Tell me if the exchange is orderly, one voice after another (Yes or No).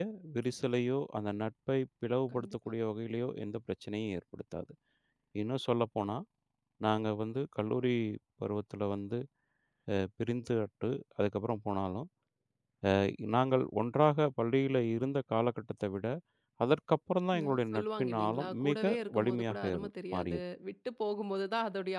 No